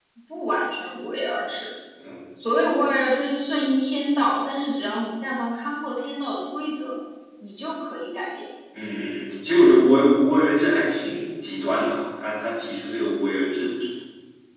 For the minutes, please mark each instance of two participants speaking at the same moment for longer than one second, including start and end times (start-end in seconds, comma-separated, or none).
none